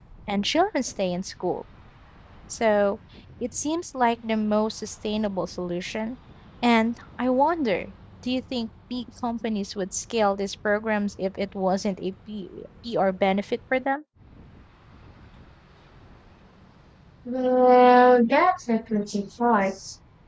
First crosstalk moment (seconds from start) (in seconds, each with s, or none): none